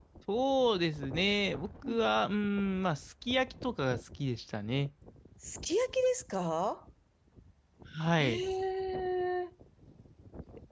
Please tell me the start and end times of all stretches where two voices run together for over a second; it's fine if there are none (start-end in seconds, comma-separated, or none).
none